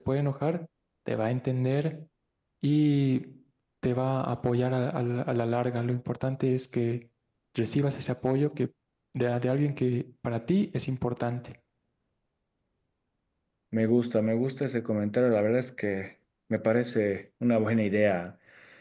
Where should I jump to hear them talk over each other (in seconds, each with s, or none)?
none